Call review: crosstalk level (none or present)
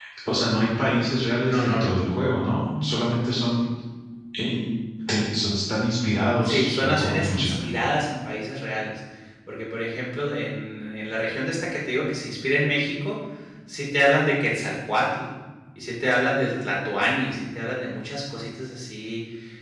present